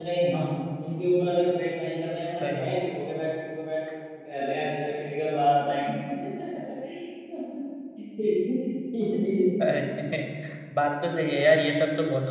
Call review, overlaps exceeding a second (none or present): none